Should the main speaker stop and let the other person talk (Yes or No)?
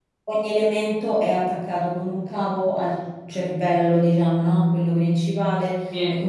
No